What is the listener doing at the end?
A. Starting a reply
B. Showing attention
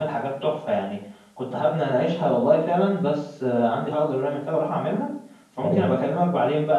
B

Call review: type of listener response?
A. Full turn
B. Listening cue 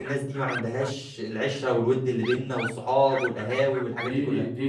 A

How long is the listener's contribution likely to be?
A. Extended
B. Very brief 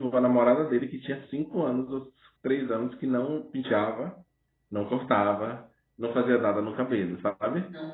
B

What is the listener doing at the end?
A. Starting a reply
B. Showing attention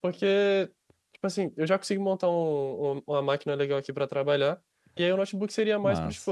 B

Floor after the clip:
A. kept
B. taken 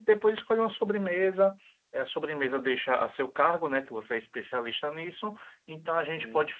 A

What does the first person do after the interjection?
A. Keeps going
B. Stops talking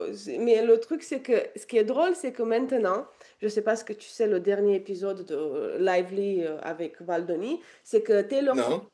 A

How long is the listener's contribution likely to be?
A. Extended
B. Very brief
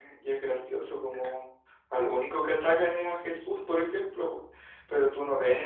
B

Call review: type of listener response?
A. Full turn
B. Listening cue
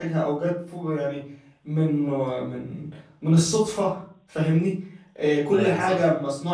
B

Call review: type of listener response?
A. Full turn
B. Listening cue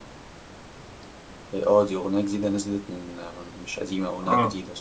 A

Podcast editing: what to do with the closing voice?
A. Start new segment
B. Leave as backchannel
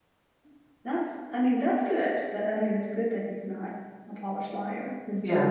B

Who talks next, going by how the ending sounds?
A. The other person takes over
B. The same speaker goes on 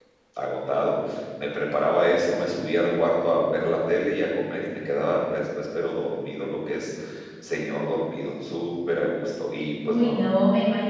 A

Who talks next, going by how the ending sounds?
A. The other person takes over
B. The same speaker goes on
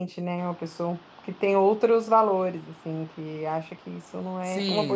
A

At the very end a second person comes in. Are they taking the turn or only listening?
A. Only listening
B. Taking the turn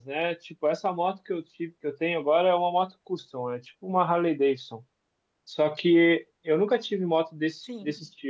A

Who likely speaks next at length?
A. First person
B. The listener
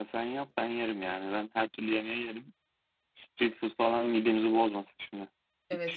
B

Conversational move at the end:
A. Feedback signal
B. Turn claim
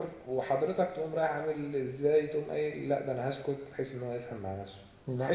A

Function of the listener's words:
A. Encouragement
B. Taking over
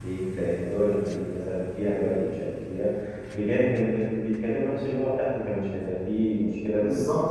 B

